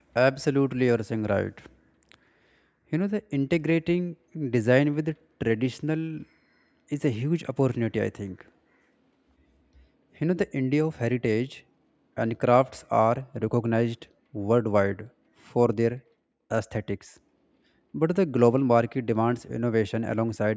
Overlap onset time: none

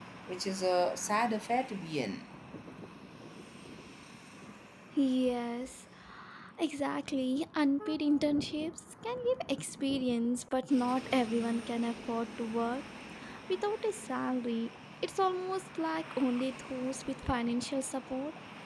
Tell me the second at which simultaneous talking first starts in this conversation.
none

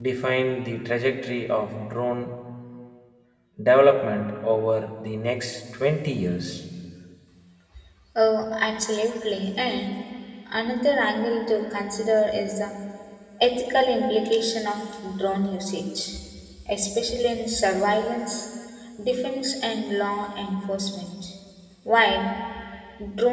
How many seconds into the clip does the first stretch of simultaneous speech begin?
none

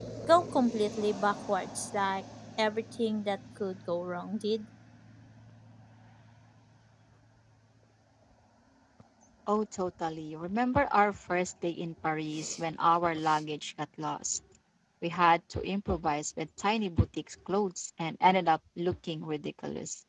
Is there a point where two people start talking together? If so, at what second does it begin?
none

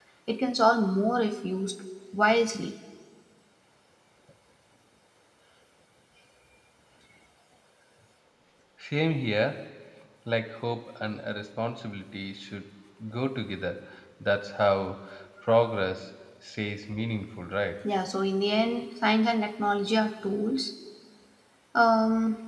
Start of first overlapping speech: none

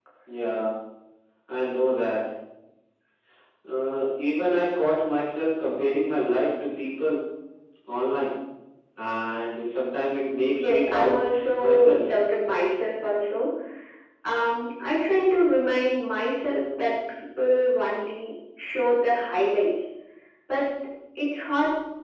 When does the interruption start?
10.6 s

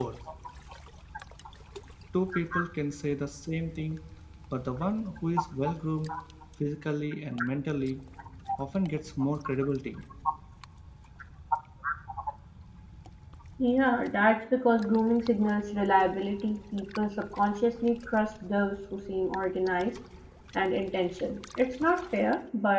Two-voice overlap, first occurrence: none

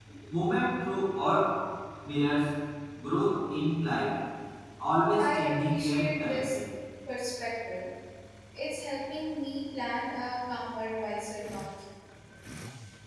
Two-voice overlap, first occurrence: 5.2 s

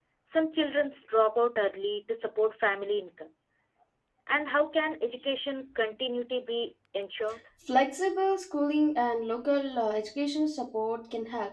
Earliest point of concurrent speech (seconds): none

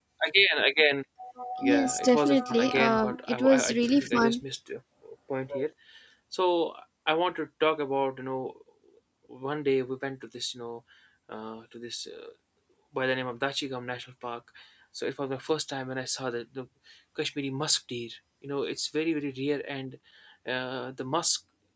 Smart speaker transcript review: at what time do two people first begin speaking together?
1.7 s

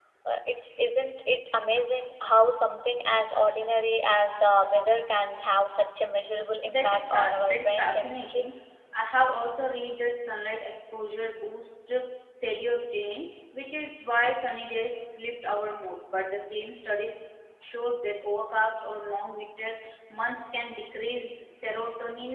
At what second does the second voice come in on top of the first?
6.6 s

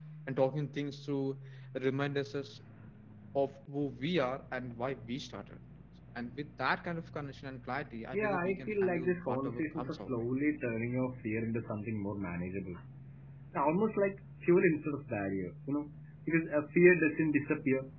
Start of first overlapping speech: 8.1 s

